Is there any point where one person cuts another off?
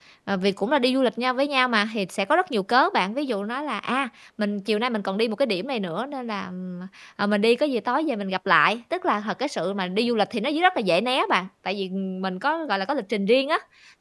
No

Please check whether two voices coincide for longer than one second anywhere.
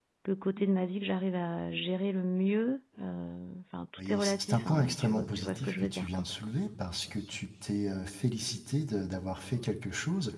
Yes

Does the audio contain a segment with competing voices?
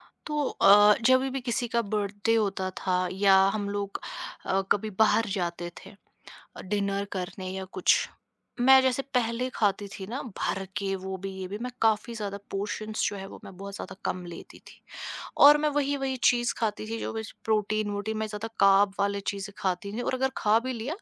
No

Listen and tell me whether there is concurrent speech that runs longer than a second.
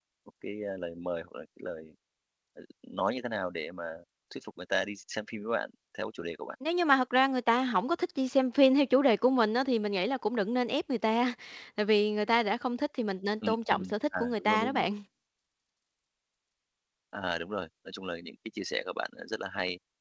Yes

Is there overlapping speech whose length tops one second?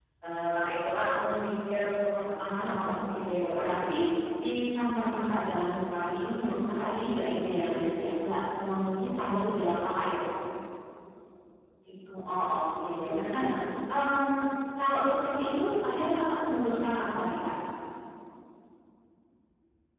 Yes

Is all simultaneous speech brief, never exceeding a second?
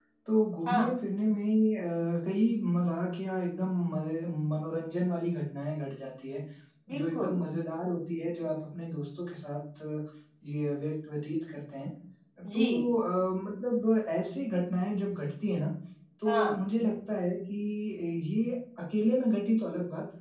Yes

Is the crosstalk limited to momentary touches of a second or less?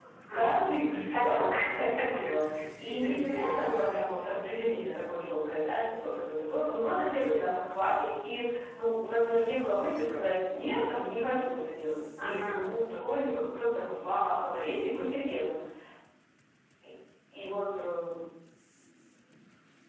No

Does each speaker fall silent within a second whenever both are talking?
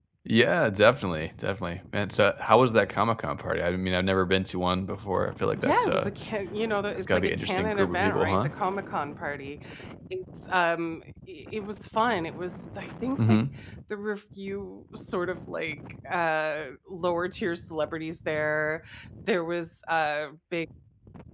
No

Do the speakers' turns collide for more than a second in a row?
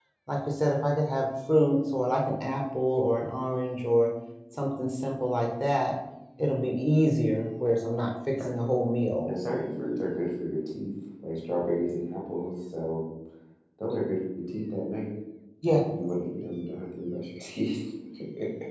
No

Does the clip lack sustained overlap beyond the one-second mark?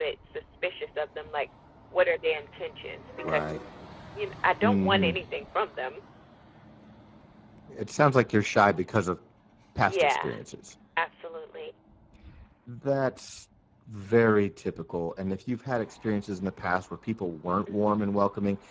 Yes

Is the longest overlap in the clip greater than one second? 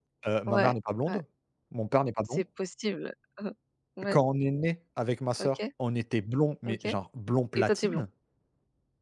No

